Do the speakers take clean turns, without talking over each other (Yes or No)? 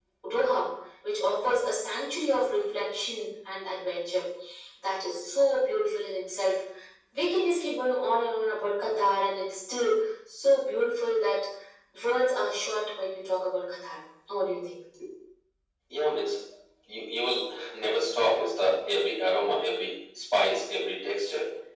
Yes